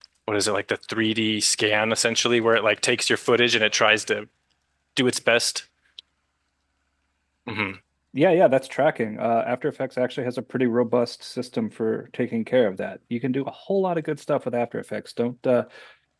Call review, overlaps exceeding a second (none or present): none